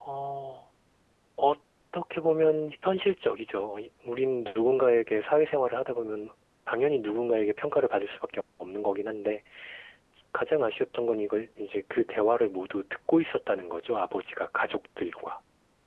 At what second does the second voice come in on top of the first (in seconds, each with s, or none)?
none